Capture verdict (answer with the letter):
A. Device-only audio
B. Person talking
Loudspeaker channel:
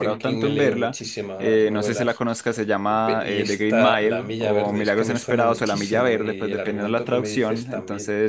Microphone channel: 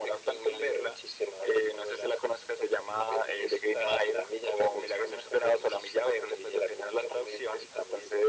A